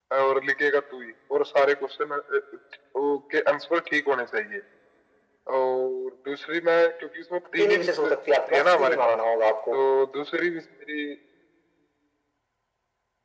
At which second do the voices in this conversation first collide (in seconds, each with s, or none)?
7.6 s